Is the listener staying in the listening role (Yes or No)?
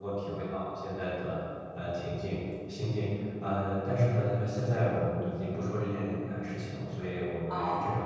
Yes